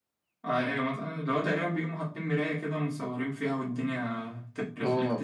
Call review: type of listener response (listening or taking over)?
taking over